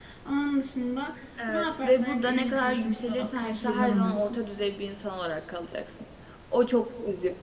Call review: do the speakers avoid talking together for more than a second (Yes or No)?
No